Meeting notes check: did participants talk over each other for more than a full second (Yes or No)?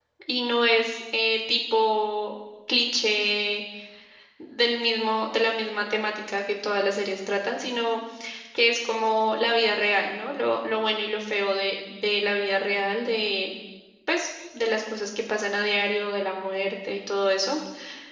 No